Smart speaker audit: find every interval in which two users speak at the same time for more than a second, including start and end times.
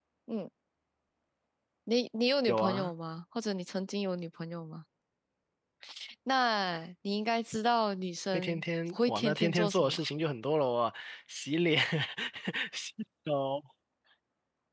8.3-10.0

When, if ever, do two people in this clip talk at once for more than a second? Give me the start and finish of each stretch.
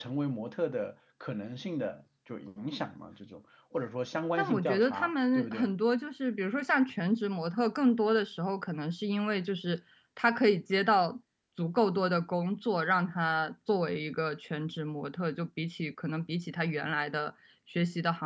4.4-5.7

